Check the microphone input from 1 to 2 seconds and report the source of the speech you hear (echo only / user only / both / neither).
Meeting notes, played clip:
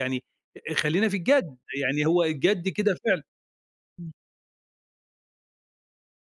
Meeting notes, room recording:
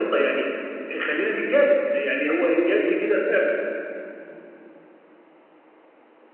echo only